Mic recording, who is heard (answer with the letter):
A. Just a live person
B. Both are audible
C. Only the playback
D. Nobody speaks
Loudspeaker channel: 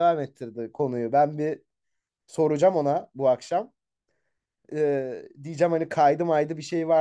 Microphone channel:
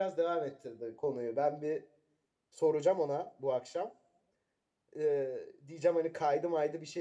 C